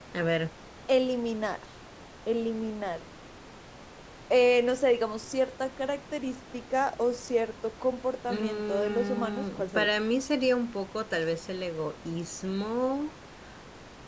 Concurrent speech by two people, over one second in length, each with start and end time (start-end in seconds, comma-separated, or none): 8.3-9.9